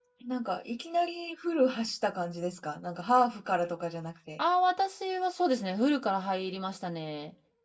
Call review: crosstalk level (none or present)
none